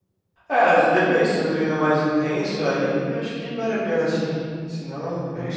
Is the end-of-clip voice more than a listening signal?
Yes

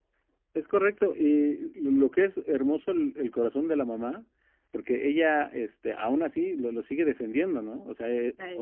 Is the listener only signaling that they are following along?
Yes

